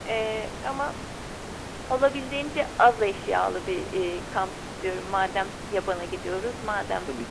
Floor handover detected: No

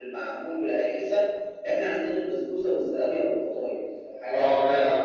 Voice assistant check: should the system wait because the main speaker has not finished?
No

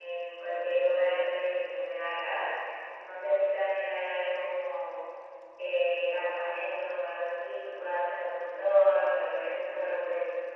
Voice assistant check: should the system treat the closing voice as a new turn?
No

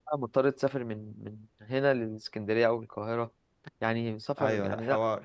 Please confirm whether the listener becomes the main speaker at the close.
Yes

